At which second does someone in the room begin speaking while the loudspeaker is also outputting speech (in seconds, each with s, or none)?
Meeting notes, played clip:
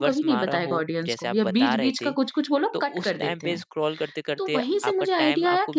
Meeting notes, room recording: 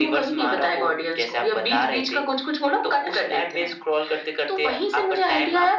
none